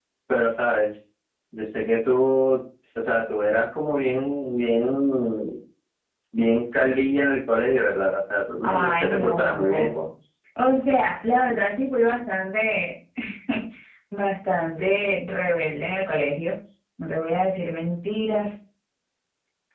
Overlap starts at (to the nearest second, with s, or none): 9 s